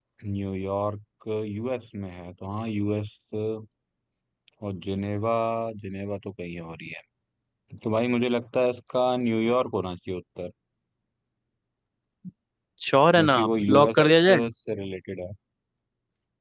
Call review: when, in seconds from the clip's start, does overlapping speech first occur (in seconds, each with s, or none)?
13.2 s